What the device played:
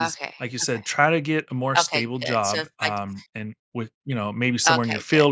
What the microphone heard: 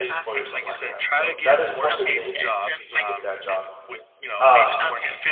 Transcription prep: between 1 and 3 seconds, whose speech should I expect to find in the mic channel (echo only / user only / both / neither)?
both